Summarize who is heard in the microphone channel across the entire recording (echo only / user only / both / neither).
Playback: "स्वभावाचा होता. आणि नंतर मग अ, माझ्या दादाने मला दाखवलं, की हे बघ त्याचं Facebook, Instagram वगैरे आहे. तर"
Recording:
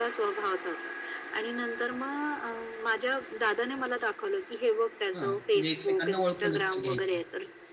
both